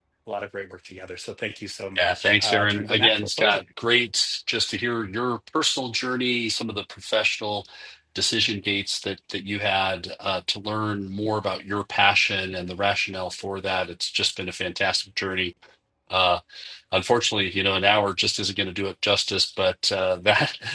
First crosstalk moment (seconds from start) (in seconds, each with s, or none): 1.9 s